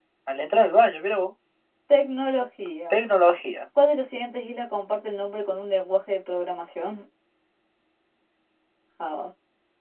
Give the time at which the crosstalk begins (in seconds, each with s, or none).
none